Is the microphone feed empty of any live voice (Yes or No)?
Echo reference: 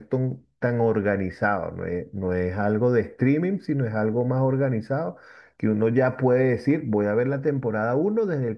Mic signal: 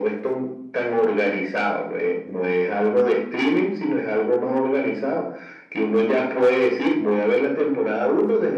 Yes